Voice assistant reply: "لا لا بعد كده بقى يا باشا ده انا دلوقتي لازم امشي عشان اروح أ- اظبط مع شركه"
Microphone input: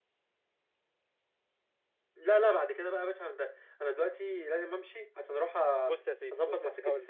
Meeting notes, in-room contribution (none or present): present